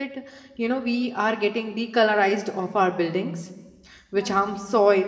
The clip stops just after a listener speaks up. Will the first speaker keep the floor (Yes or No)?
Yes